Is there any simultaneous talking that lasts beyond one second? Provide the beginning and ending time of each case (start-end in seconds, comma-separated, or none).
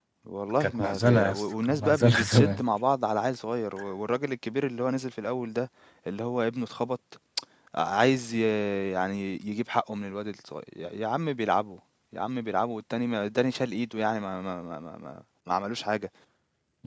0.6-2.6